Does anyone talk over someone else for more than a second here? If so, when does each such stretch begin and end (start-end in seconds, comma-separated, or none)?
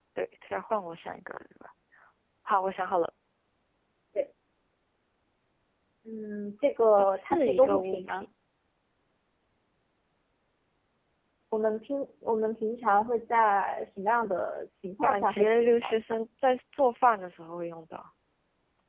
7.0-8.2, 15.0-16.3